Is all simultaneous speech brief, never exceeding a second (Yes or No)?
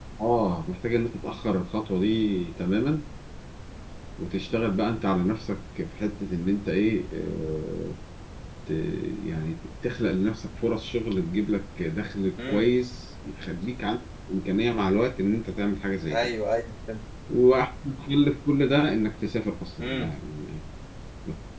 Yes